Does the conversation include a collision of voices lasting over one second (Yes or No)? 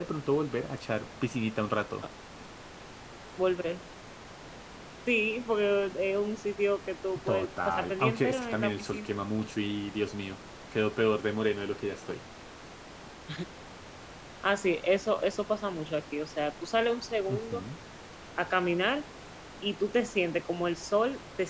Yes